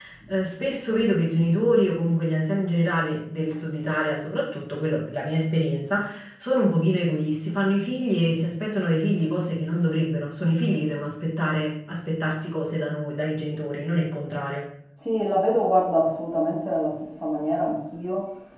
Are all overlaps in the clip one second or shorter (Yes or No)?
Yes